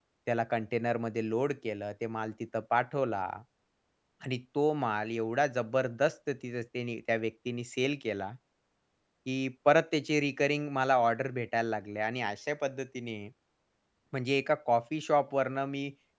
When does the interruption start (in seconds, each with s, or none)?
none